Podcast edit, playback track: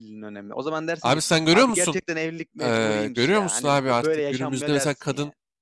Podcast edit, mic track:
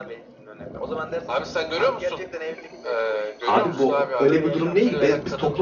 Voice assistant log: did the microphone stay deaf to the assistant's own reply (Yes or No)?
No